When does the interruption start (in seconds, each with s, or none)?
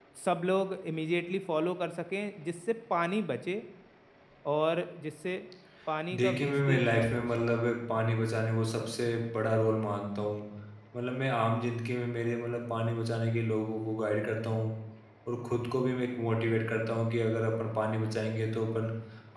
6.2 s